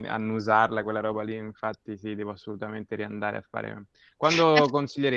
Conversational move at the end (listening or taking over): listening